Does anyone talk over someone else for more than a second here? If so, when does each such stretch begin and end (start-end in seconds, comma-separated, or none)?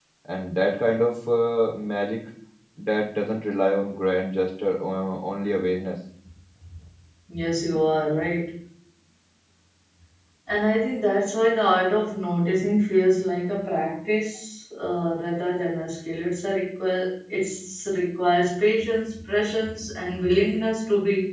none